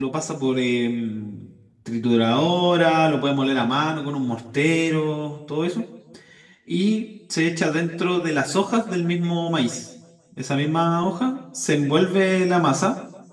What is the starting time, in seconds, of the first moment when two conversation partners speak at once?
none

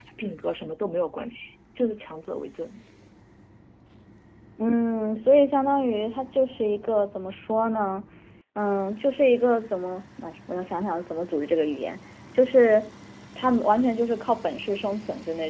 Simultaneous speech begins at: none

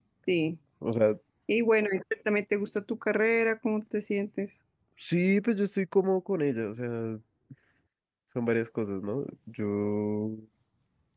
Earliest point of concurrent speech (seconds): none

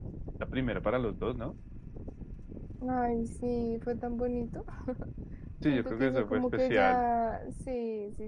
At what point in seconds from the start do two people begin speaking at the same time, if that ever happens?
5.7 s

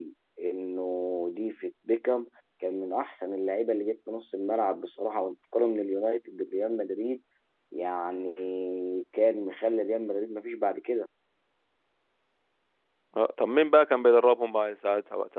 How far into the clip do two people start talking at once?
none

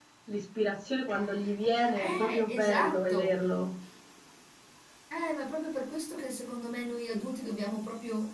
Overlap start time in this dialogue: 1.9 s

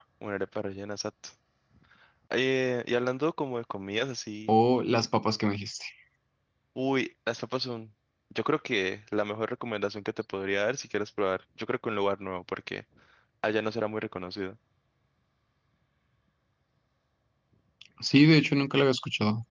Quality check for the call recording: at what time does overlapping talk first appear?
none

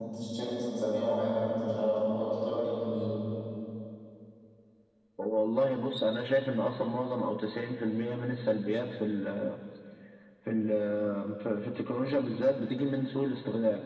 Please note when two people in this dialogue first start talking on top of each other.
none

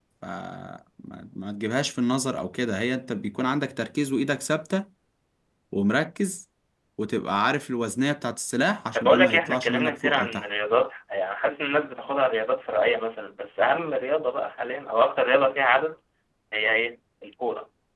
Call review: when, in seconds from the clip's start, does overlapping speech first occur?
8.9 s

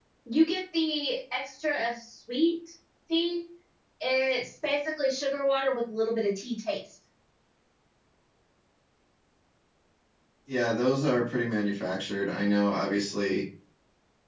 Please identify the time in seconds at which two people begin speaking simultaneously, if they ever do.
none

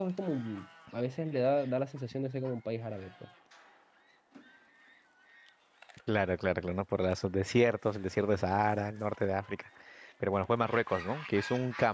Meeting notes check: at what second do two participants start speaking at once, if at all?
none

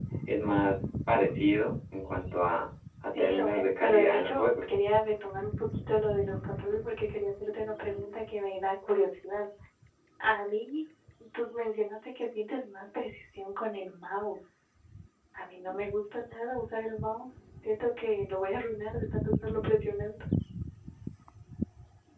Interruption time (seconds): 3.0 s

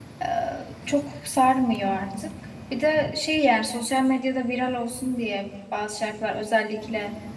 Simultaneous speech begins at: none

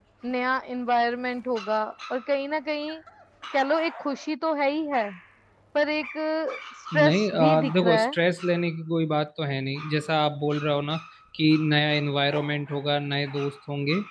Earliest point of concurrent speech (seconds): 6.9 s

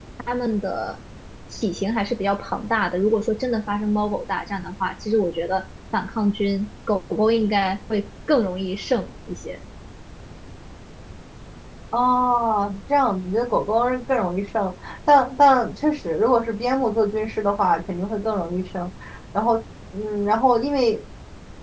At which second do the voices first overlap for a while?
none

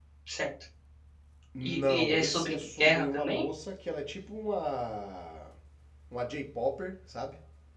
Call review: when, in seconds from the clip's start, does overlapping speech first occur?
1.6 s

